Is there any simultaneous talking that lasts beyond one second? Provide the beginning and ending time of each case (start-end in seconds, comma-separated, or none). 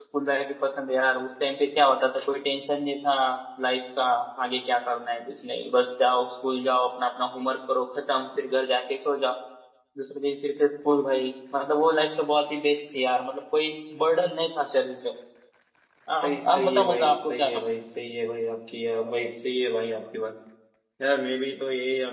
16.2-17.6